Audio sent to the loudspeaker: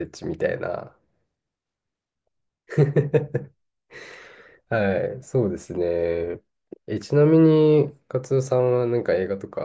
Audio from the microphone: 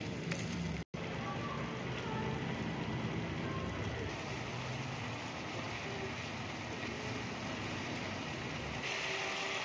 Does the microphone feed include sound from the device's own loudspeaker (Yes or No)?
No